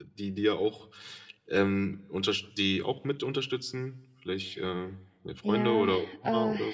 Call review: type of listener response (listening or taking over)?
taking over